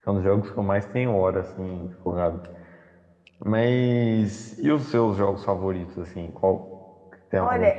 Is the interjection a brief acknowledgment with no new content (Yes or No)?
No